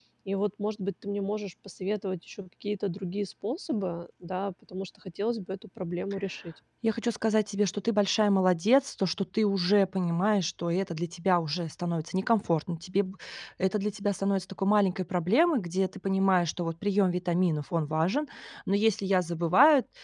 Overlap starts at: none

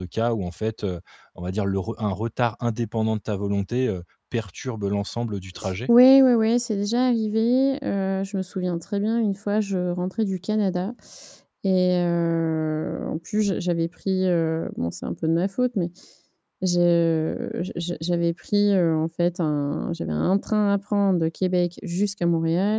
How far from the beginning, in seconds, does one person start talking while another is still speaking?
none

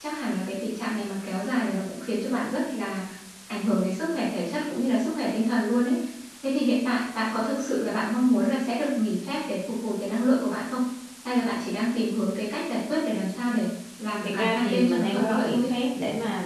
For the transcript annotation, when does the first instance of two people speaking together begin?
14.2 s

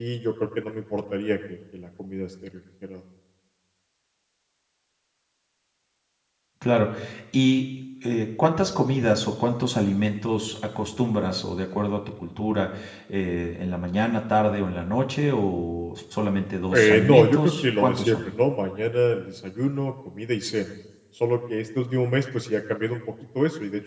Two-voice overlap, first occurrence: 16.7 s

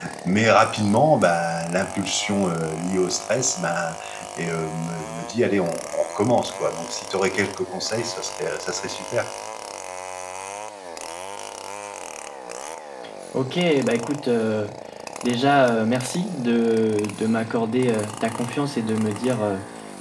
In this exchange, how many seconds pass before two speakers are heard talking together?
none

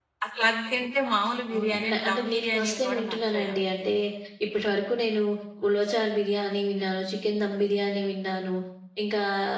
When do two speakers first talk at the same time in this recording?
1.5 s

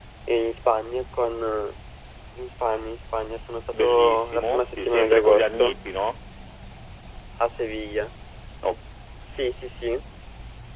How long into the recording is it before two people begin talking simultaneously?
3.7 s

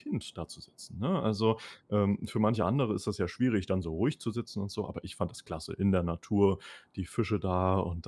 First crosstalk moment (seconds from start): none

